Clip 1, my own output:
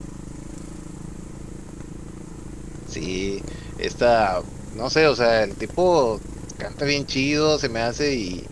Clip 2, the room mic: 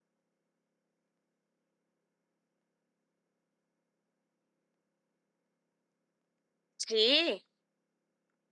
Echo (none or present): none